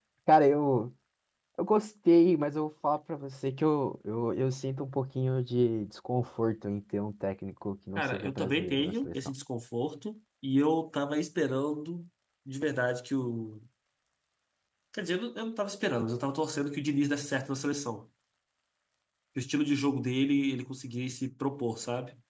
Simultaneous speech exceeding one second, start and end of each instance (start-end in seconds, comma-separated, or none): 8.0-9.2